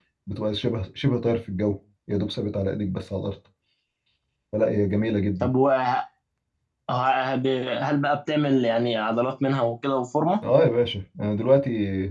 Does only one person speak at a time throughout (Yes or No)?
Yes